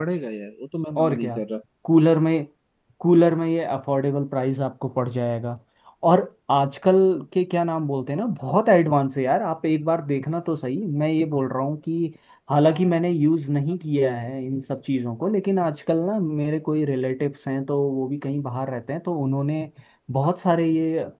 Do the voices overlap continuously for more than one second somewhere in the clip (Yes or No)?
No